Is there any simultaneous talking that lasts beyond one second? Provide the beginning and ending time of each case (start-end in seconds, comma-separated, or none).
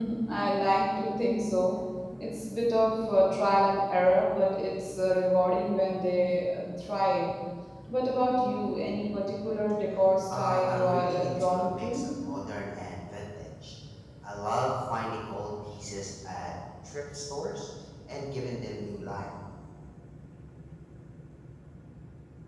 10.3-12.0